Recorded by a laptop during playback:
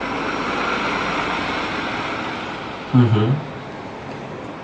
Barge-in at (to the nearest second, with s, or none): 3 s